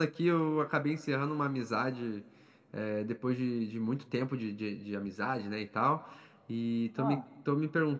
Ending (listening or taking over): listening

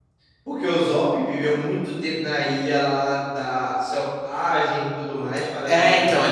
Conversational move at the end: taking over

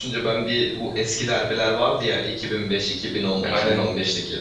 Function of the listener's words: listening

